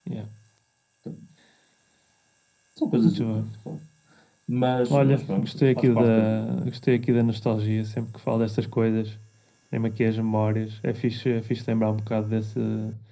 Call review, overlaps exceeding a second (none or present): present